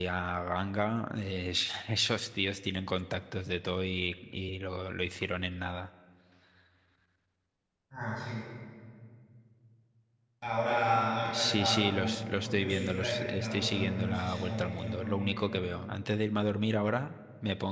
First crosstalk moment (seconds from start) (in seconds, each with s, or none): 11.3 s